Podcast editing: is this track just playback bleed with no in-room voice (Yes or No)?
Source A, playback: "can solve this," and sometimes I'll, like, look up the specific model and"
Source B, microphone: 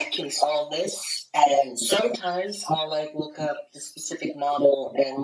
Yes